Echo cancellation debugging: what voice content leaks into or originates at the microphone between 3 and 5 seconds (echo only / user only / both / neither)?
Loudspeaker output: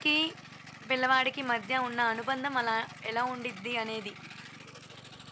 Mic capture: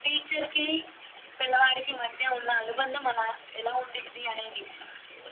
echo only